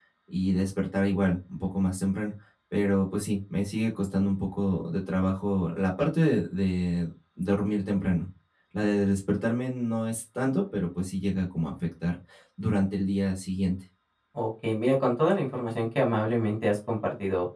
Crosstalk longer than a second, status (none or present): none